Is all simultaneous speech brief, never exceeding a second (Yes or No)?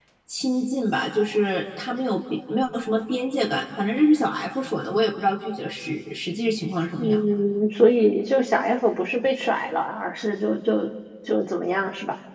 Yes